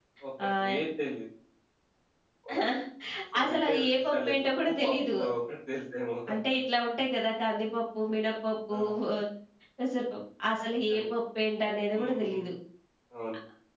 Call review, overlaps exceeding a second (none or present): present